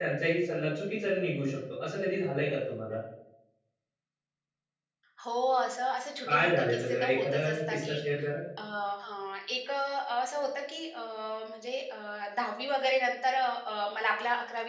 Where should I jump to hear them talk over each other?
6.2 s

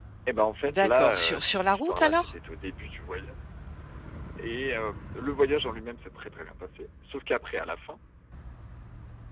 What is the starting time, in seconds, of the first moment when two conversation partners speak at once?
0.7 s

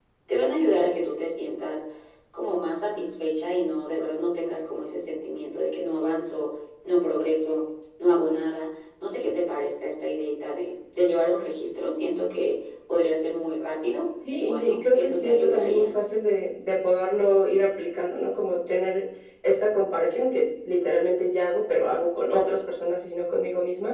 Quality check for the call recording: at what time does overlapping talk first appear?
14.2 s

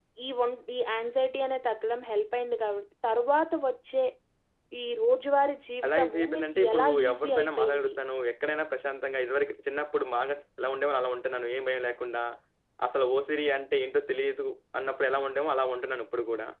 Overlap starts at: 5.8 s

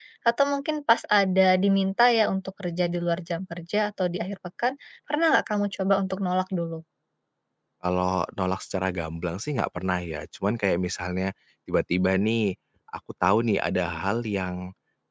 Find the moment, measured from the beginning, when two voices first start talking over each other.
none

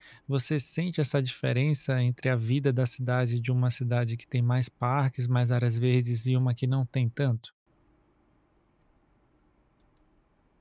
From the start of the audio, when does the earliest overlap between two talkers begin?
none

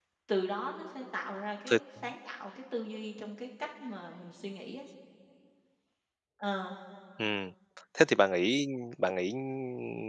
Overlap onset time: none

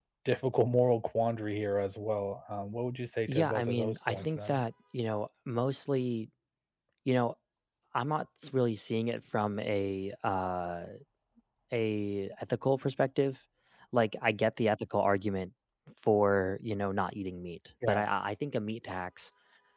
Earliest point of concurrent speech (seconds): 3.3 s

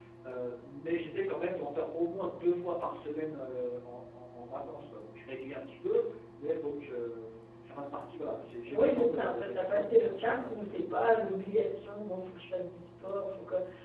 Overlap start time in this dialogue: 8.7 s

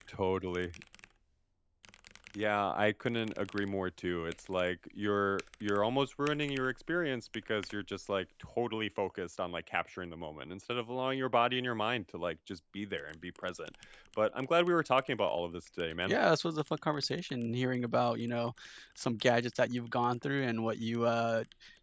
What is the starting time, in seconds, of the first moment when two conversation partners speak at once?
none

